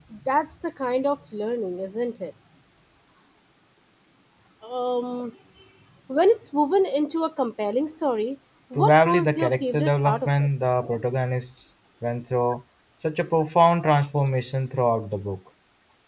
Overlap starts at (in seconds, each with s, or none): 8.8 s